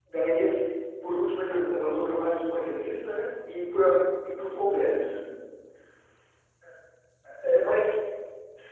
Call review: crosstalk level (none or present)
present